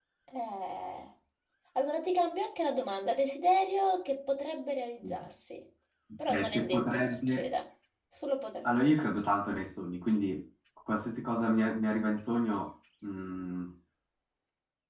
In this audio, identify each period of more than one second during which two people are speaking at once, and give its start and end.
6.3-7.5

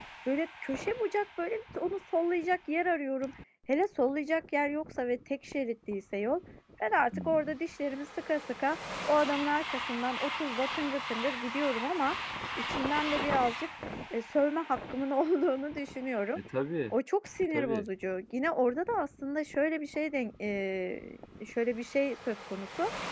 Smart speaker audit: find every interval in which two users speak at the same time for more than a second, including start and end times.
none

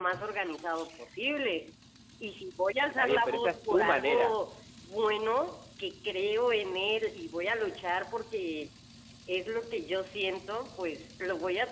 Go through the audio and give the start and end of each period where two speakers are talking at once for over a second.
3.0-4.4

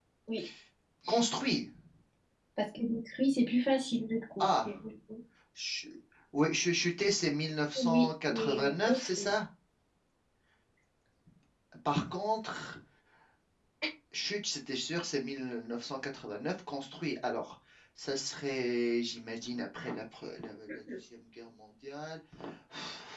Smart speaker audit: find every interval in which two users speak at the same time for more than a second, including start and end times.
7.8-9.3

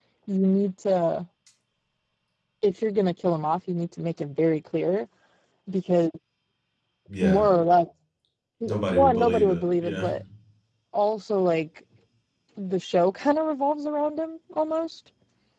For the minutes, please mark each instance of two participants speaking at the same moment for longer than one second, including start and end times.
8.7-10.1

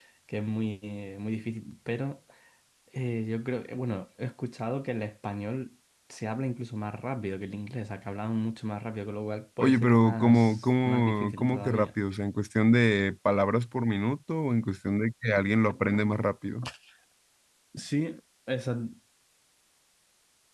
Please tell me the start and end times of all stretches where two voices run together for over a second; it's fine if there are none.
9.6-11.9

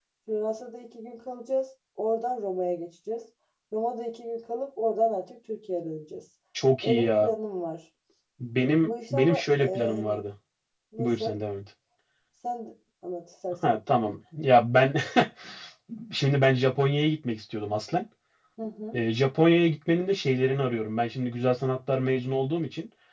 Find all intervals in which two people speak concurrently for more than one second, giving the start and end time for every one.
8.8-10.2

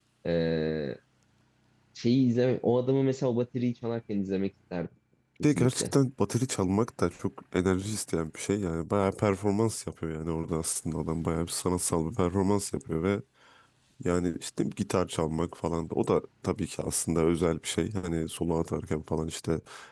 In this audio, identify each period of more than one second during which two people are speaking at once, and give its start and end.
none

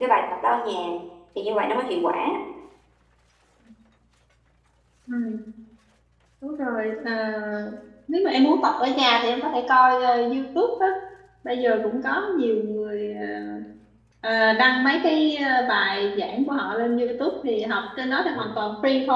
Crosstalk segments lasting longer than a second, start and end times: none

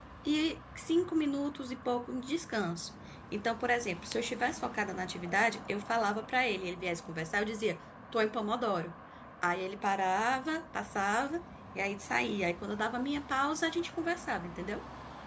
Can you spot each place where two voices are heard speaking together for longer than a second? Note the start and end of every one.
none

